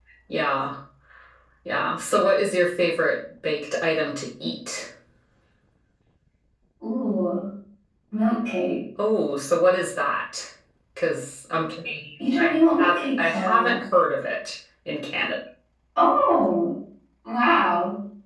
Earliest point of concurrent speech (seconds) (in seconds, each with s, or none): 12.2 s